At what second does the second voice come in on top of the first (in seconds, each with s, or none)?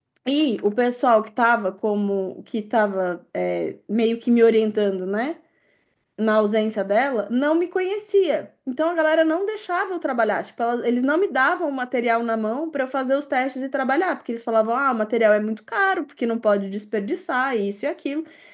none